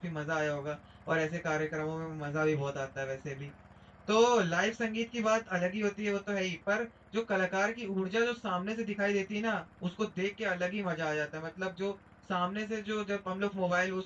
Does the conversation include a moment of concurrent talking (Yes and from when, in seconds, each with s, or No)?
No